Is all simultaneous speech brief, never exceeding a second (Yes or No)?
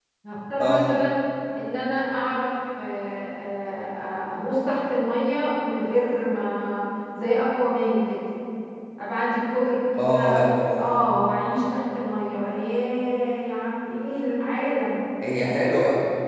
Yes